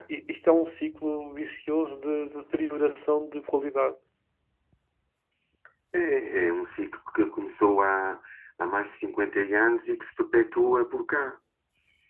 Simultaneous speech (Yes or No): No